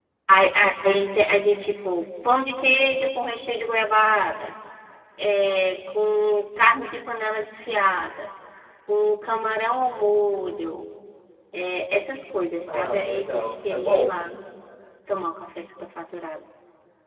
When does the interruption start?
12.7 s

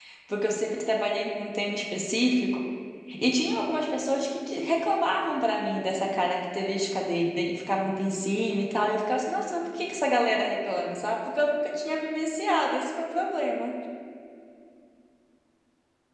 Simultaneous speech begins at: none

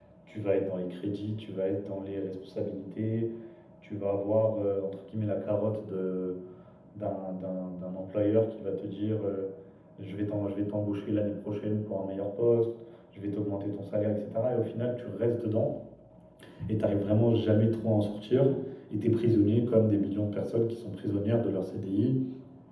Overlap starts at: none

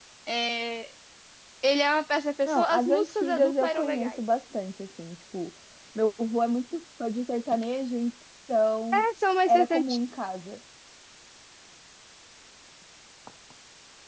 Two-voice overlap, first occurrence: 2.5 s

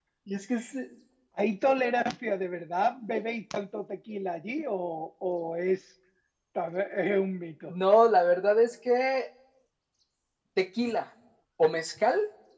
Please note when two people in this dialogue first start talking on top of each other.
none

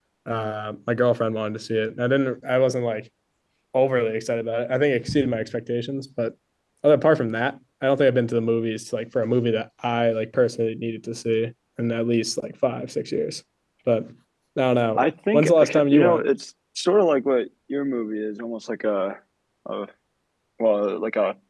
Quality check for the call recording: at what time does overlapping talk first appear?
15.0 s

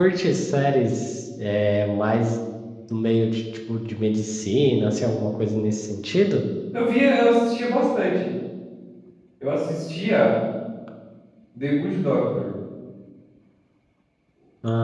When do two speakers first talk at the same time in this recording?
none

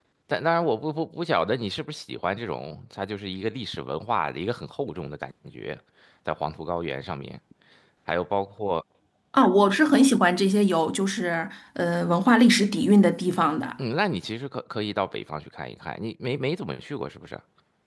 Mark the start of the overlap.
none

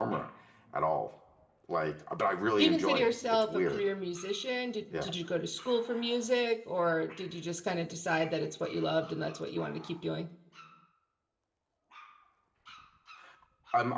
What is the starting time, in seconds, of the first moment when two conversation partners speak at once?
2.6 s

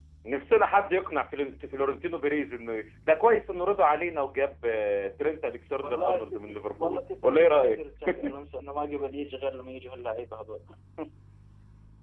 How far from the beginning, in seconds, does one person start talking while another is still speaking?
5.8 s

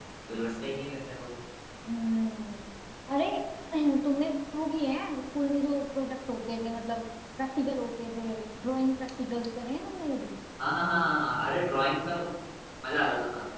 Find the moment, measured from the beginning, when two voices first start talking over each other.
none

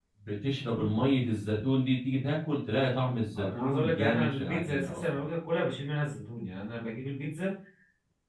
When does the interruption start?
3.3 s

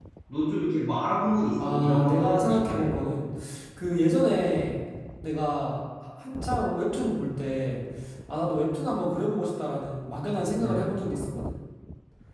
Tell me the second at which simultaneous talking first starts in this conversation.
1.6 s

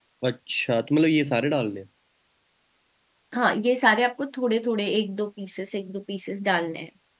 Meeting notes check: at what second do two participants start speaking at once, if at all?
none

